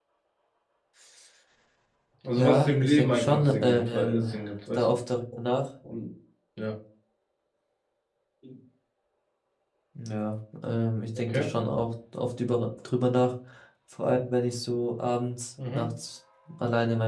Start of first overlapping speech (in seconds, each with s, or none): 2.4 s